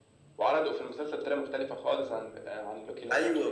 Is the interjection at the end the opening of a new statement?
Yes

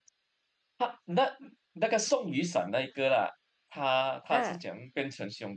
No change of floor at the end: Yes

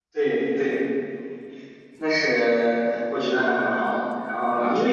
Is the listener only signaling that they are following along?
Yes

